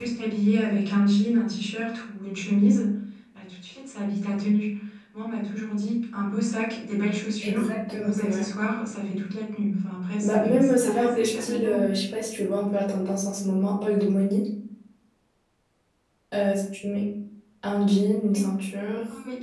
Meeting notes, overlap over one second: present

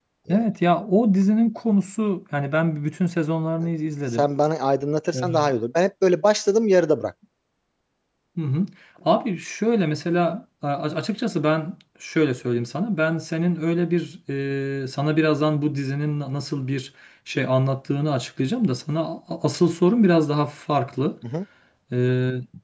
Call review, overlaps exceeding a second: none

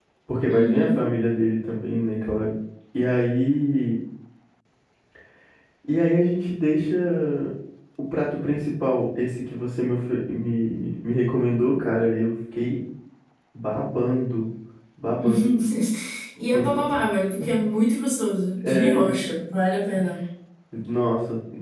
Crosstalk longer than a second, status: none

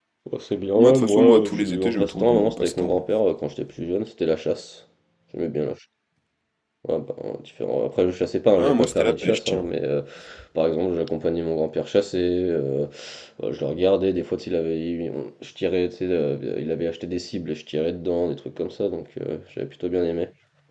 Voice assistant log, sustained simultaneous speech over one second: present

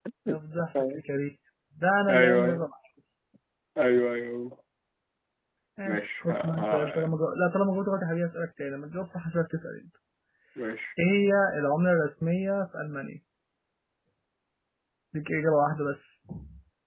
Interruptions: present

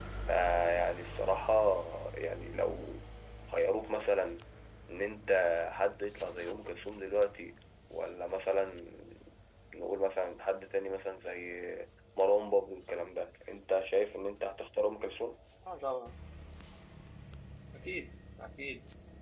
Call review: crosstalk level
none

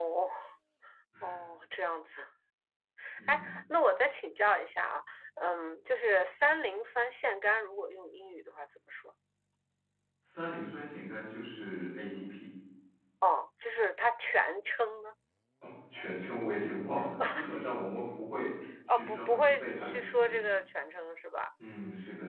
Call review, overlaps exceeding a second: present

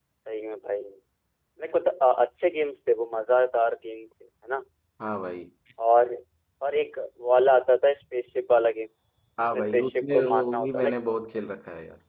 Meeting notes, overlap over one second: present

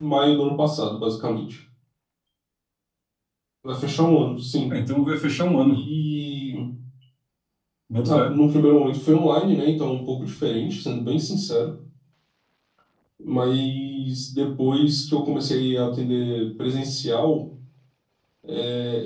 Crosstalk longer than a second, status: none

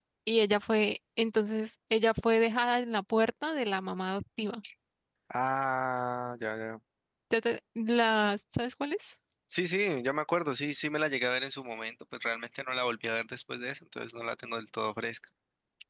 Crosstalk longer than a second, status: none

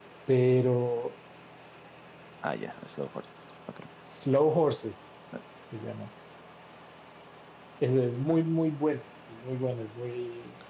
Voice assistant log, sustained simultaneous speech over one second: none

